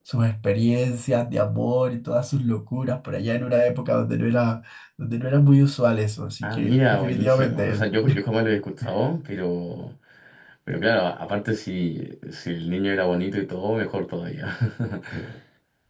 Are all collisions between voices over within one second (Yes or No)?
No